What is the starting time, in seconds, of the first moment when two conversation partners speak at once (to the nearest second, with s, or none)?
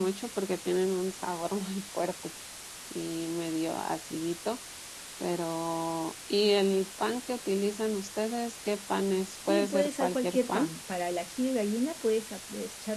9 s